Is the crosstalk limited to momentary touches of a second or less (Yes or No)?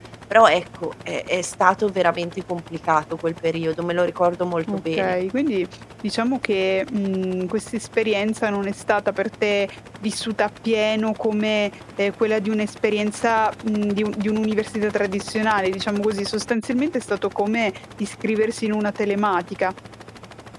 Yes